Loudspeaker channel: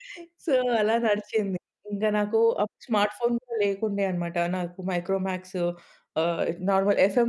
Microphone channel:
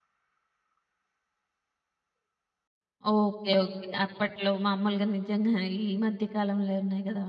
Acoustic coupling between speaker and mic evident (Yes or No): No